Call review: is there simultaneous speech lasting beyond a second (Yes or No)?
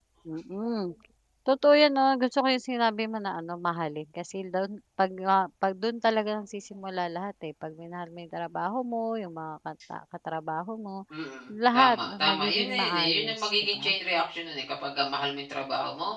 Yes